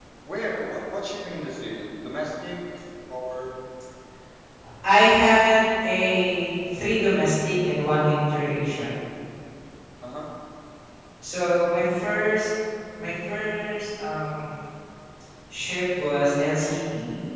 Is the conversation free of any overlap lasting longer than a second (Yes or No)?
Yes